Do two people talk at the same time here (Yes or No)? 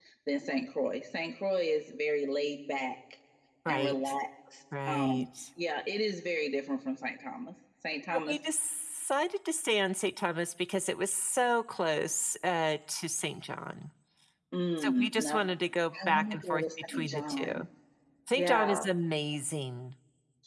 Yes